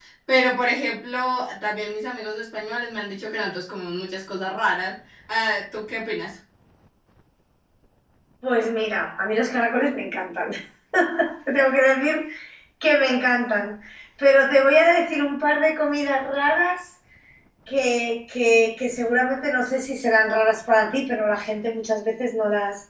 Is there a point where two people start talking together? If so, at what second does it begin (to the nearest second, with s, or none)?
none